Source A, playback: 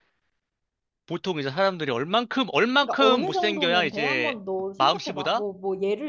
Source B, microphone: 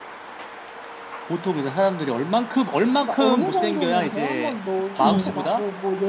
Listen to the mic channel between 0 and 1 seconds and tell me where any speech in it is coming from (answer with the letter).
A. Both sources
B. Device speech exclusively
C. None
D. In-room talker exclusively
C